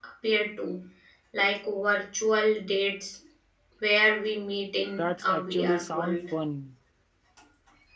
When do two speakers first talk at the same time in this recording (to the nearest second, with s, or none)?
5 s